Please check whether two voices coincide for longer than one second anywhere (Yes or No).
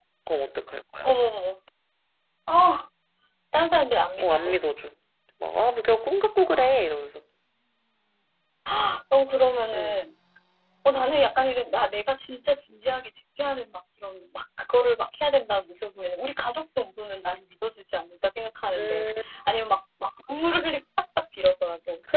No